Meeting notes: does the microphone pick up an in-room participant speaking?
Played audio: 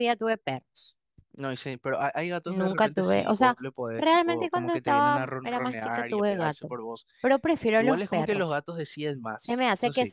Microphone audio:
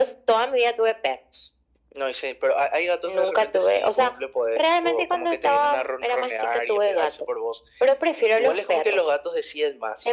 No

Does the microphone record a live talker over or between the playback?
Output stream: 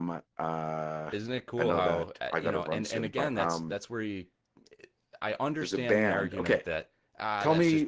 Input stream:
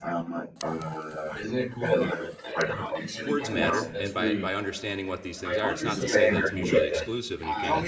Yes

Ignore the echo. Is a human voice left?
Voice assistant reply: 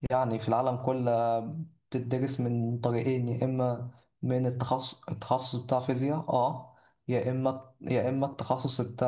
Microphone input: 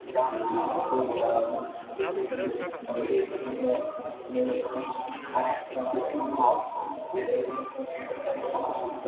Yes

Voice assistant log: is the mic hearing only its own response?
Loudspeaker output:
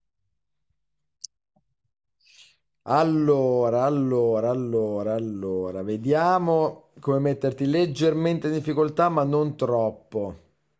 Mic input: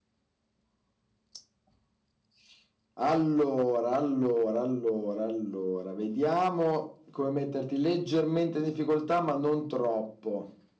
Yes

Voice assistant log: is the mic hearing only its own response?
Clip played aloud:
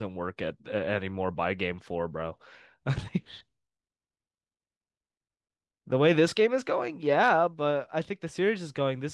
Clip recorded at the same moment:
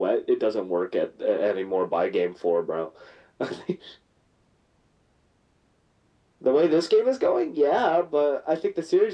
Yes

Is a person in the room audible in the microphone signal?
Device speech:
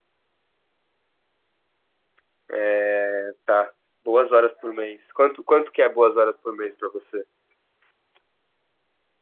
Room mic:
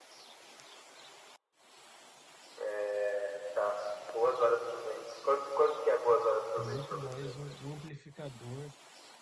Yes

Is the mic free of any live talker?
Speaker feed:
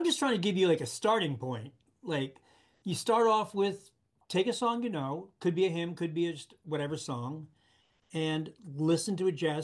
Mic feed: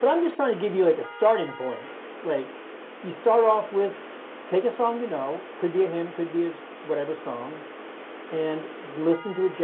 Yes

